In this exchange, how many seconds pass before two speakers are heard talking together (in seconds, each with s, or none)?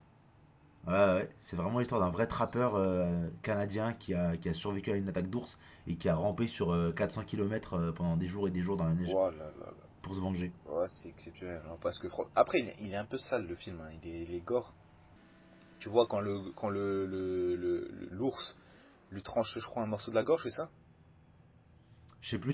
none